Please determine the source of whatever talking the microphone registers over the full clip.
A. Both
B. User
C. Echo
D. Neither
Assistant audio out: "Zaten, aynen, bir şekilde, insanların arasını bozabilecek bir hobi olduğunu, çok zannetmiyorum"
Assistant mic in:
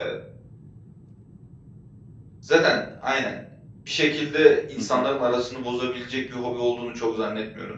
A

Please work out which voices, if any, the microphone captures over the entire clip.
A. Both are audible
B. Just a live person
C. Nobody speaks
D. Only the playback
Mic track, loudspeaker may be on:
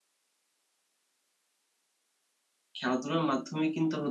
B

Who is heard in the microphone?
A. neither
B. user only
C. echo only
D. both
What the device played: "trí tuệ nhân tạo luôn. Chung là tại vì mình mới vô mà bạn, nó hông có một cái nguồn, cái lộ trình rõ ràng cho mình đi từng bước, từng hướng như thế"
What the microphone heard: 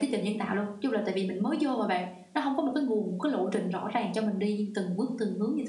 C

